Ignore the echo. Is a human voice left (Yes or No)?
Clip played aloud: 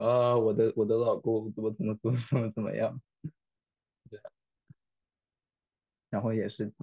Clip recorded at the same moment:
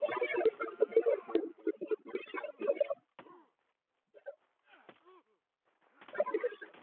No